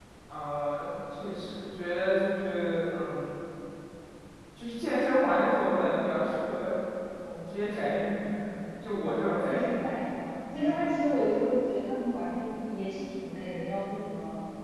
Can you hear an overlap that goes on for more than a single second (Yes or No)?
No